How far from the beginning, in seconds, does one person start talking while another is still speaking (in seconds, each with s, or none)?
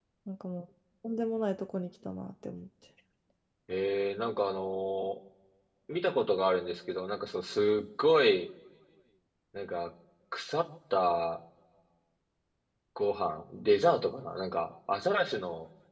none